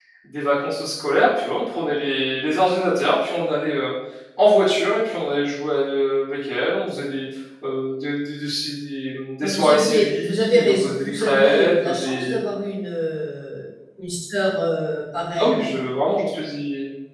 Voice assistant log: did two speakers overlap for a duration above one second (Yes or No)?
Yes